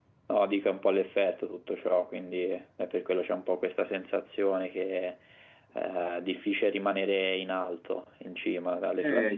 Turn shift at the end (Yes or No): Yes